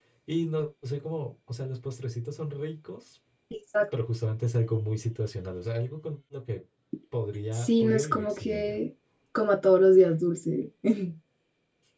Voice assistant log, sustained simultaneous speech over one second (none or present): present